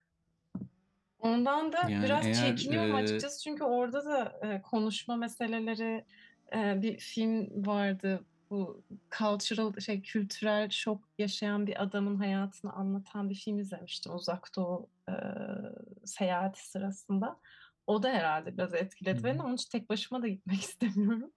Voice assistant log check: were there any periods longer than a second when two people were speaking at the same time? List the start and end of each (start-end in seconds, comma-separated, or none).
1.8-3.2